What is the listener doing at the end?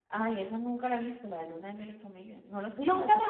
taking over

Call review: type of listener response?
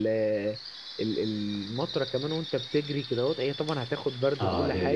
taking over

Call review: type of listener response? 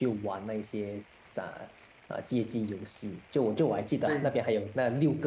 listening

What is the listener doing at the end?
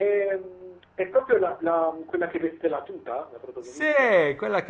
taking over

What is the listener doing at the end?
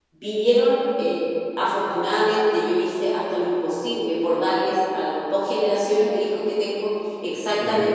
listening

